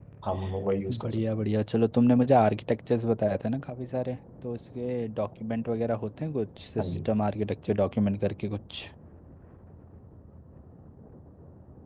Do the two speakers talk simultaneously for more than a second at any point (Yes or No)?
No